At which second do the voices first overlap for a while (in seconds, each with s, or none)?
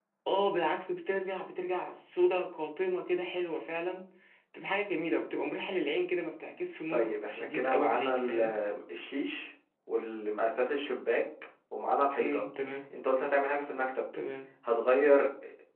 6.9 s